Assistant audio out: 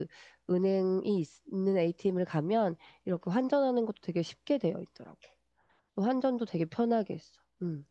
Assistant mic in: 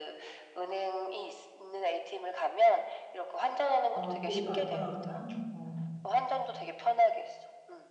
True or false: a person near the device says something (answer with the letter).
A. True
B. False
A